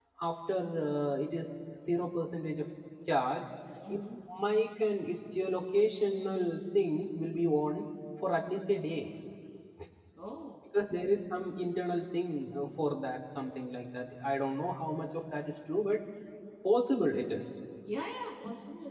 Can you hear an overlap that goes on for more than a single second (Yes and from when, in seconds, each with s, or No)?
No